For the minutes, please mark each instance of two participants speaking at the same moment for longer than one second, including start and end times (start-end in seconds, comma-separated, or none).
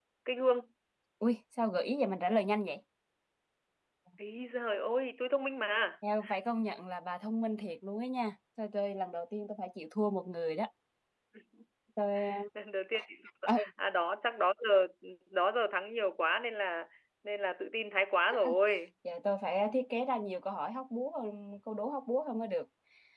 none